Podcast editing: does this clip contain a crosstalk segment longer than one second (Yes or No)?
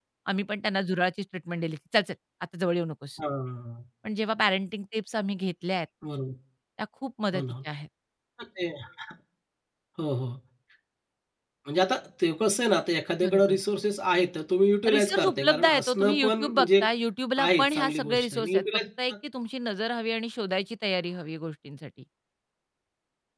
Yes